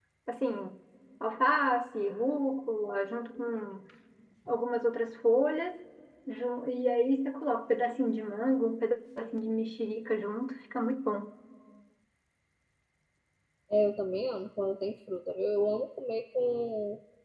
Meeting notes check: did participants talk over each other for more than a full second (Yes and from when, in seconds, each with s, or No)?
No